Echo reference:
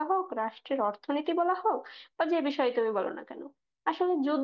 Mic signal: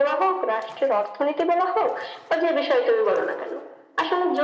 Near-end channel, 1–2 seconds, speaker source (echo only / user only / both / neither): echo only